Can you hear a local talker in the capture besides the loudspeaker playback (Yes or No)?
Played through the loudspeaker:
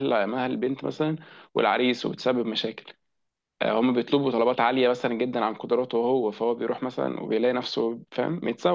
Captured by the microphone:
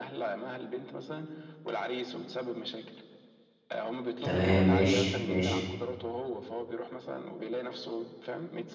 Yes